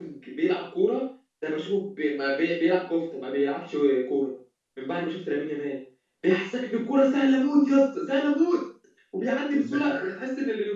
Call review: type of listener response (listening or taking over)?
listening